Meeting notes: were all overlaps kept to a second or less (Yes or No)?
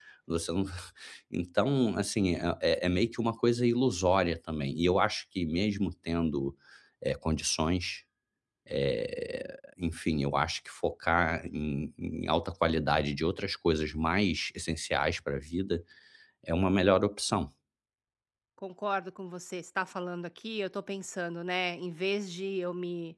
Yes